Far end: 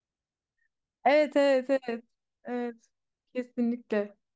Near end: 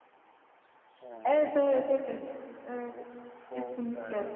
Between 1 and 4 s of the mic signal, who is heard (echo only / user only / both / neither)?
both